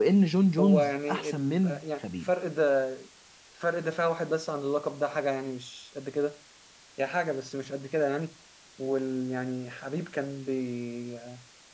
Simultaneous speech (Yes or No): Yes